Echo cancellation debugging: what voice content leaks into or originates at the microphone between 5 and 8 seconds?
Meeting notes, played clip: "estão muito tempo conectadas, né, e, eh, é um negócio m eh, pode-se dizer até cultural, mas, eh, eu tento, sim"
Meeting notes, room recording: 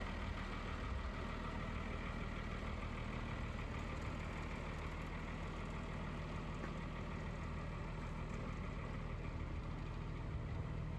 neither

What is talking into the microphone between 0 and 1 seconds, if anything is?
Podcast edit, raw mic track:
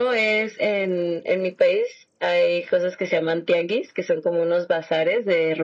echo only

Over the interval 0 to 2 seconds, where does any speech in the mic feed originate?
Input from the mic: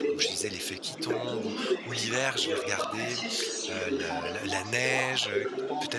both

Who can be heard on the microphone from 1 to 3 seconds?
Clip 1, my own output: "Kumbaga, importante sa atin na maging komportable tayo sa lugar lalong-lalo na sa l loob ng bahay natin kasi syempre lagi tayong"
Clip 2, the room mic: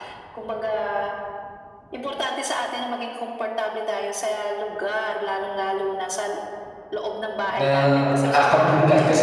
echo only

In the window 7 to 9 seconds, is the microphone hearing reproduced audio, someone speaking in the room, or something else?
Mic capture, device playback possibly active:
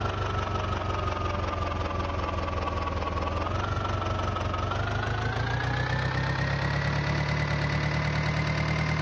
neither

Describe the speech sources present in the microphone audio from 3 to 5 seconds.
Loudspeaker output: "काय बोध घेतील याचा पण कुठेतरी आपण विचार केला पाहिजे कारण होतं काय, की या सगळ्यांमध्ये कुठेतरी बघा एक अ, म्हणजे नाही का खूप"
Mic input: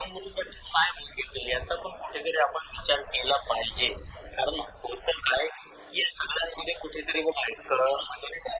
echo only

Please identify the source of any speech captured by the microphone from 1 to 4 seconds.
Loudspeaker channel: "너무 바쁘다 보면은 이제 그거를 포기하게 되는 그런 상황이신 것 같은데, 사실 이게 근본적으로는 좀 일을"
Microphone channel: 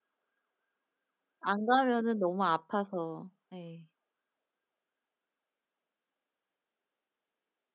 user only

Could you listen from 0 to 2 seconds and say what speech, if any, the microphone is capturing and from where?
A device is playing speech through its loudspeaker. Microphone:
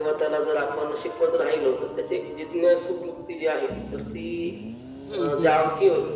echo only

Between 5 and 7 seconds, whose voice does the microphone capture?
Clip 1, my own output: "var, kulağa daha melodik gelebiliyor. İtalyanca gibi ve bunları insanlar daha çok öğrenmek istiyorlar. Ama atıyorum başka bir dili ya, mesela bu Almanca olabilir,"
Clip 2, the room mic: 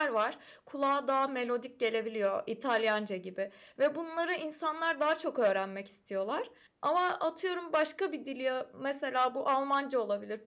echo only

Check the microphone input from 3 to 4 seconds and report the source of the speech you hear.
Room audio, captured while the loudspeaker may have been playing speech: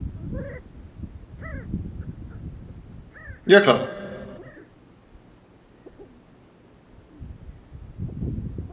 user only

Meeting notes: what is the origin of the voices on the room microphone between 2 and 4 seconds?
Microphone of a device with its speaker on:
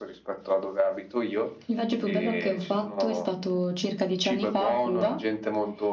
echo only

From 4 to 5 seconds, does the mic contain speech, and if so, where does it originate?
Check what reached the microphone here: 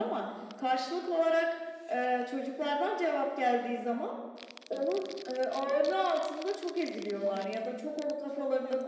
echo only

